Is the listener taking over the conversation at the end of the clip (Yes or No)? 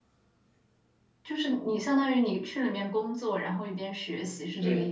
Yes